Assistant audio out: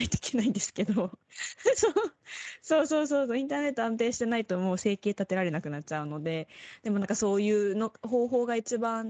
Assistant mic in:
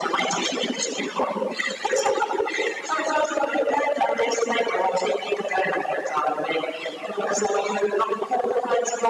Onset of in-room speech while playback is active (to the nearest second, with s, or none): none